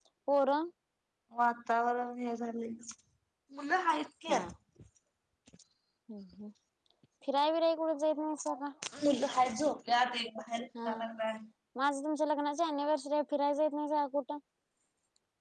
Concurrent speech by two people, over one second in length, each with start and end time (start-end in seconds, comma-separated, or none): none